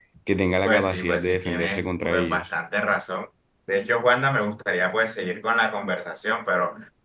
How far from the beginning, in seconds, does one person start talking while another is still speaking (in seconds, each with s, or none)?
0.6 s